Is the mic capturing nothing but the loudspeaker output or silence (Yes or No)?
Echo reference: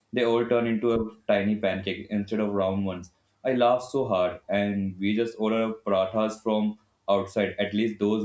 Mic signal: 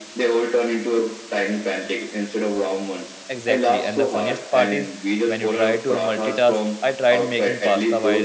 No